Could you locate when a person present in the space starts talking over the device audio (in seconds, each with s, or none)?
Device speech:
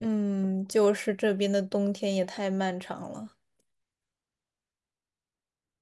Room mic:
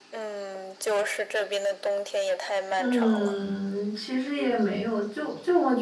2.8 s